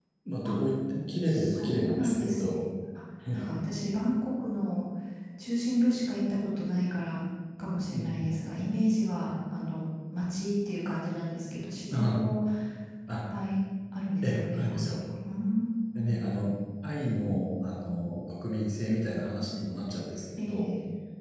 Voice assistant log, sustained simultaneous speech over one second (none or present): present